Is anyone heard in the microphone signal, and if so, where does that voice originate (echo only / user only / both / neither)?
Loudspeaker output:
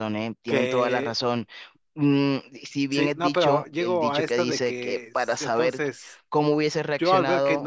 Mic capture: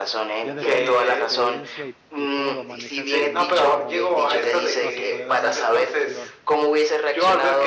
both